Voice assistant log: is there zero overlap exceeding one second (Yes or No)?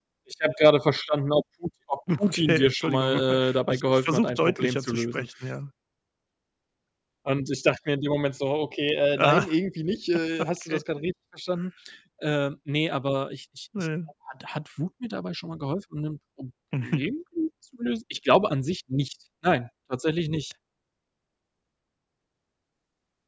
No